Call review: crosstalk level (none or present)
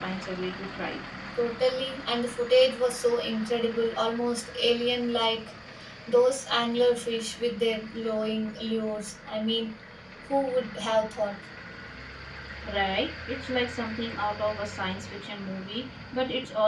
none